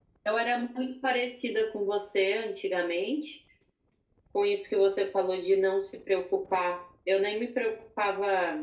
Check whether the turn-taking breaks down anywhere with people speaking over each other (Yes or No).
No